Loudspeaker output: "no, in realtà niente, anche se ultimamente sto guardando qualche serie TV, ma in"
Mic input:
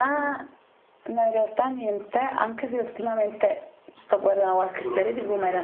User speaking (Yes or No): Yes